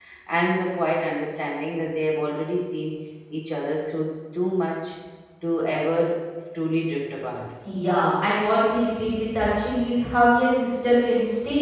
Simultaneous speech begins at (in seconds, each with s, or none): none